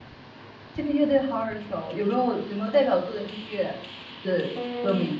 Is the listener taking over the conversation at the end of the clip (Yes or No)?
Yes